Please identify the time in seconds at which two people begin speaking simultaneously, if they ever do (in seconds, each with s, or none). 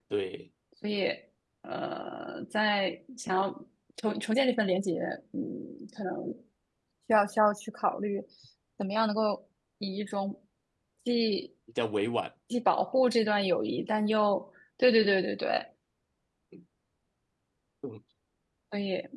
none